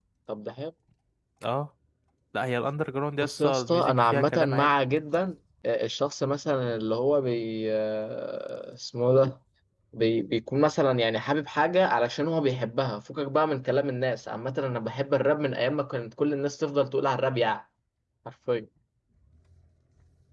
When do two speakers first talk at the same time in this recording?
3.2 s

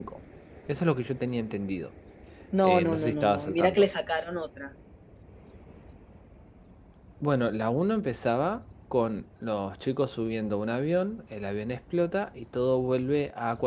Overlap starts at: 2.6 s

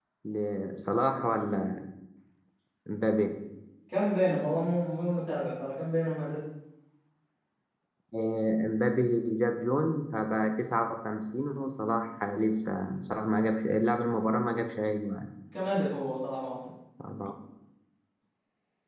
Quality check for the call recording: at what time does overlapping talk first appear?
none

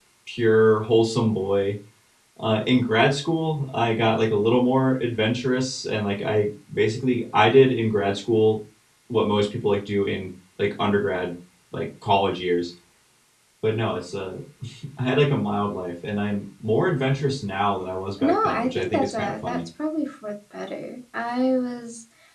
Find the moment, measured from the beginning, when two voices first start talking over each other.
18.2 s

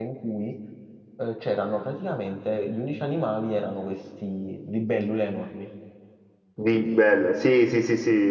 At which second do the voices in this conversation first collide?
none

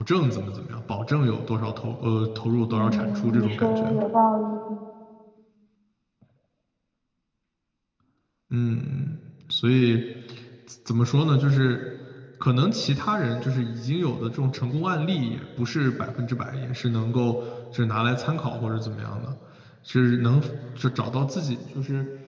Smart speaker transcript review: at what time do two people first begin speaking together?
2.7 s

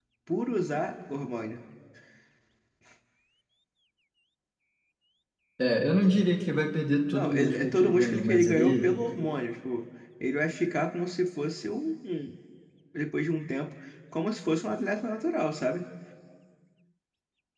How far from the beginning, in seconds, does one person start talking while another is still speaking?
7.1 s

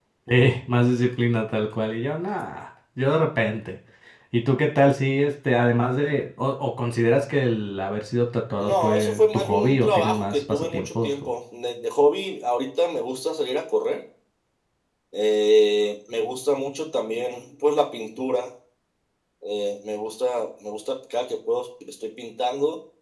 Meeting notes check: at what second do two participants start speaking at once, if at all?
8.6 s

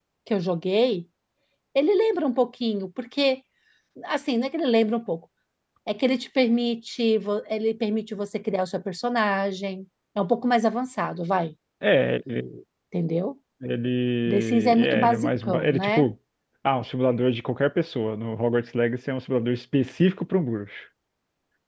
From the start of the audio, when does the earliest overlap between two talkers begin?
14.3 s

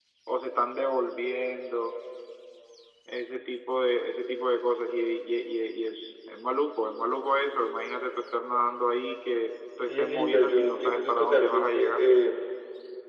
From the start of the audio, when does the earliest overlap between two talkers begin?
9.8 s

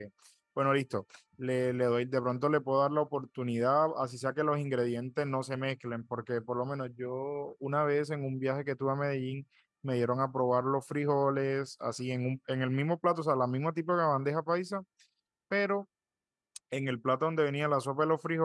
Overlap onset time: none

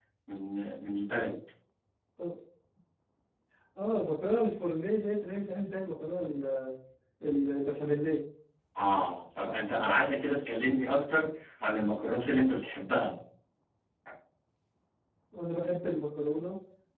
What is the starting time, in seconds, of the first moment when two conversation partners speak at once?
none

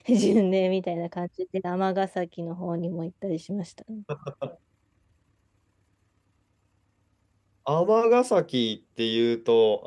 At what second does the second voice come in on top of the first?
none

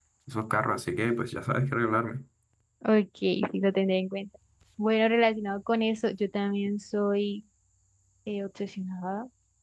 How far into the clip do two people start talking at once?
none

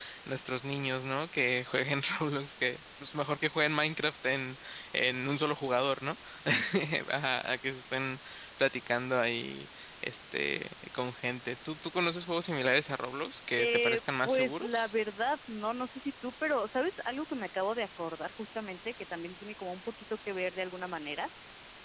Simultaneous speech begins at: 13.6 s

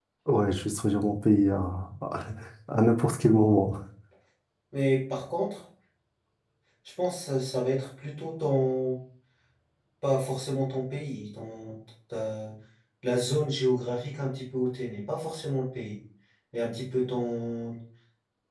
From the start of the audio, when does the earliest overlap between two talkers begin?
none

